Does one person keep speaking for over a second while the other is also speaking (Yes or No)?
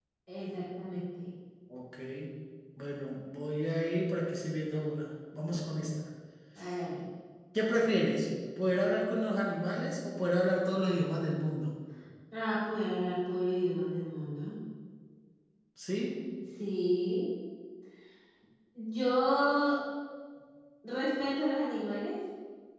No